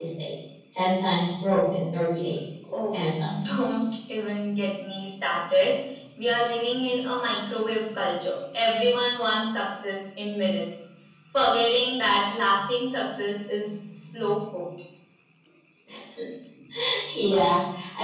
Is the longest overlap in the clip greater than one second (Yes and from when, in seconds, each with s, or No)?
No